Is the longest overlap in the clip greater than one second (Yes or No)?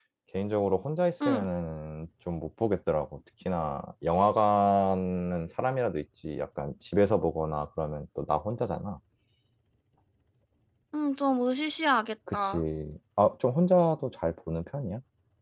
No